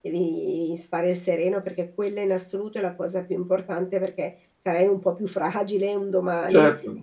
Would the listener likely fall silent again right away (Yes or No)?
No